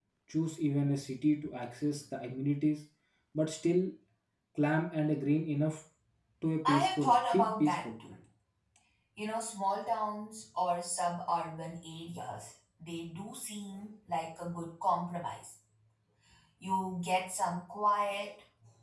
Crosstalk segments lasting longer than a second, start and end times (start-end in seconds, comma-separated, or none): 6.7-7.9